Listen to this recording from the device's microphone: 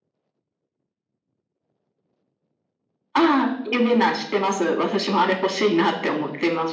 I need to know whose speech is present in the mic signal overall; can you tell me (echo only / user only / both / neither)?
echo only